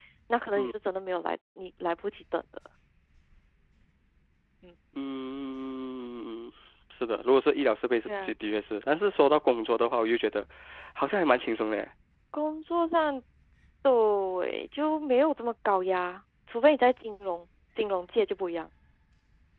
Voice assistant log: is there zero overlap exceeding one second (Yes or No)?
Yes